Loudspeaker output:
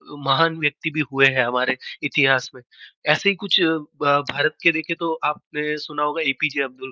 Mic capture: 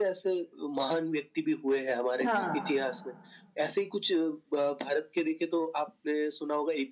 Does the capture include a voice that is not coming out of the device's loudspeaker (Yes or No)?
Yes